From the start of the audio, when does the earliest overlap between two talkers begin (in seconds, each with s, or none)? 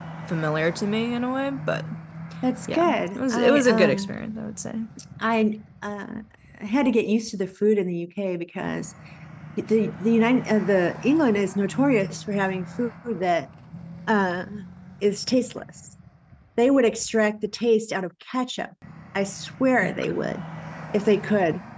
2.7 s